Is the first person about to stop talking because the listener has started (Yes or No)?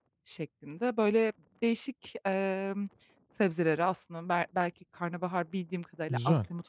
No